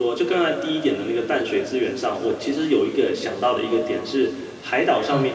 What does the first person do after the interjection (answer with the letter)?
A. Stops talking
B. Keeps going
B